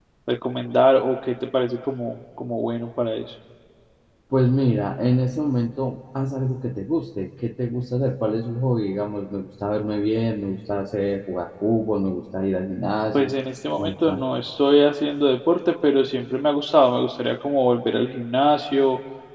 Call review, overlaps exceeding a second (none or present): none